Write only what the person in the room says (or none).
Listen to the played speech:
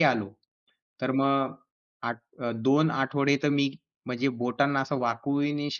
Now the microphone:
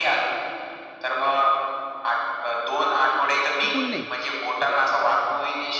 चुकून नाही.